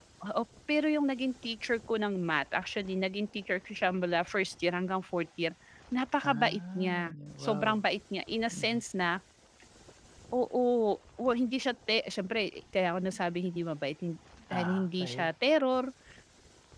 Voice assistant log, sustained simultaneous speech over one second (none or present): present